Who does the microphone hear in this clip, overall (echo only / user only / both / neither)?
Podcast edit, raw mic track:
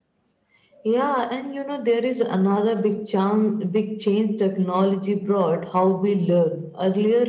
echo only